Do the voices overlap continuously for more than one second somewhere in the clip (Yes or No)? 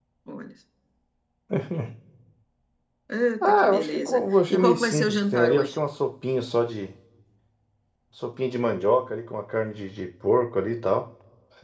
Yes